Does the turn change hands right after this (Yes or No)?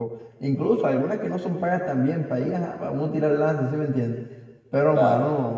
No